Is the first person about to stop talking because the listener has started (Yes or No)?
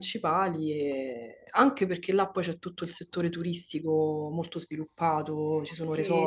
Yes